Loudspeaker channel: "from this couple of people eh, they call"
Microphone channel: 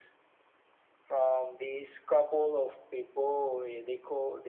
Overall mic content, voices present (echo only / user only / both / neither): echo only